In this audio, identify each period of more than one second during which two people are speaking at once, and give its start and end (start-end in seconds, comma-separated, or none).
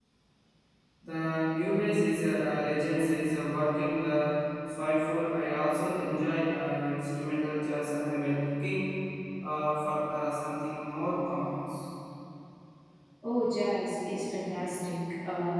none